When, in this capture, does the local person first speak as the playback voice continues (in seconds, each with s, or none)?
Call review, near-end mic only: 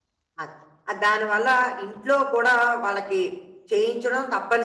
0.4 s